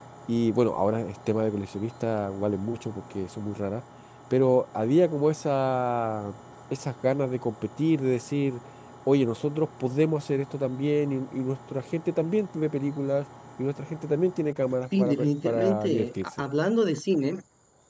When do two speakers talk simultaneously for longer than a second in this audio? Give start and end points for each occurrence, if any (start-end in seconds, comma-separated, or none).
15.0-16.2